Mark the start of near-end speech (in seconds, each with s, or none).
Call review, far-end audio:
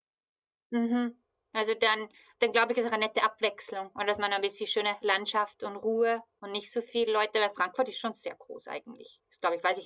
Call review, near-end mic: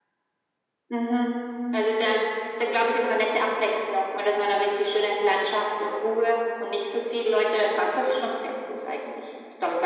none